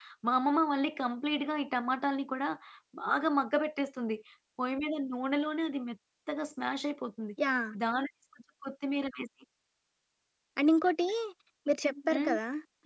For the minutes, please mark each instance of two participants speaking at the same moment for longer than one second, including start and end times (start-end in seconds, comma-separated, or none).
none